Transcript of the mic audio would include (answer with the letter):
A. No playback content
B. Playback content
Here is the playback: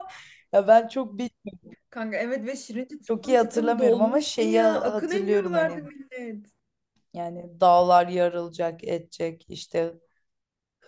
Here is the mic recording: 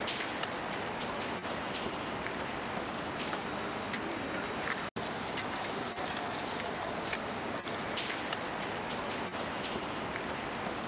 A